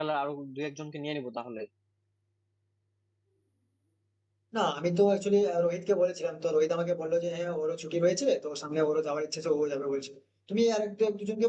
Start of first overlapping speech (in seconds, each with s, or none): none